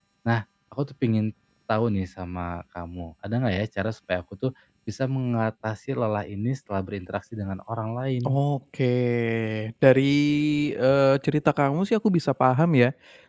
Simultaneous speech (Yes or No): No